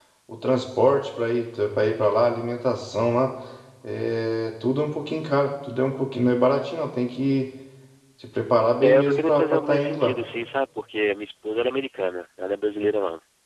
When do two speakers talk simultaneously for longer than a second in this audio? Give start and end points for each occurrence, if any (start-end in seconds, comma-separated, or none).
8.8-10.2